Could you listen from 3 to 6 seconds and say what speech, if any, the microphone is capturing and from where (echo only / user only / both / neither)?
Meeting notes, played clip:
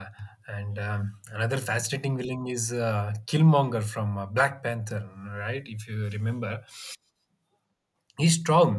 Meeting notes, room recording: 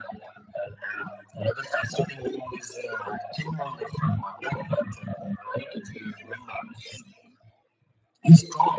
echo only